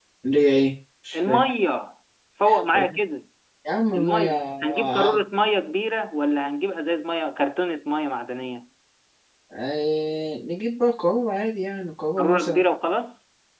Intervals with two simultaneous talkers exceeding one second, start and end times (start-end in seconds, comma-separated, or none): 4.0-5.2